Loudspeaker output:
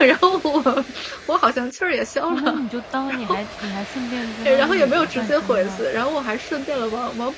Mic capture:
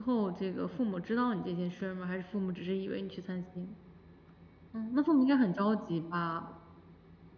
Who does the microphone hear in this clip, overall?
user only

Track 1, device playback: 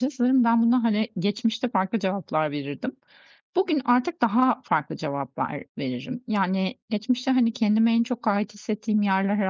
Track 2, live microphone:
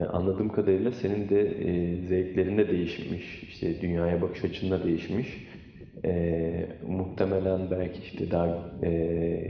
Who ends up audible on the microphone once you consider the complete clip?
user only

